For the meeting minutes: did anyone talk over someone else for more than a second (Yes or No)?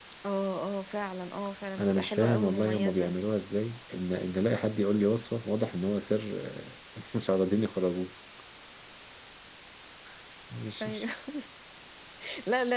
Yes